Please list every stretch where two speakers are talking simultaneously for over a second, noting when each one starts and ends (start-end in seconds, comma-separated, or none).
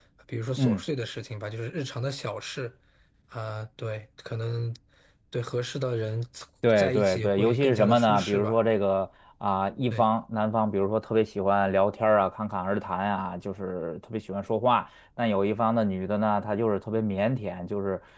6.8-8.6